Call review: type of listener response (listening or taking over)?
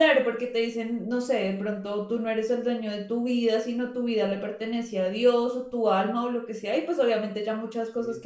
taking over